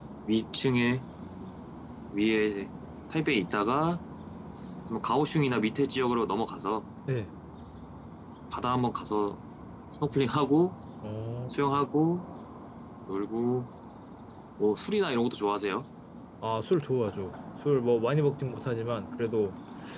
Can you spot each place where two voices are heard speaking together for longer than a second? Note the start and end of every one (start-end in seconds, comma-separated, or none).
none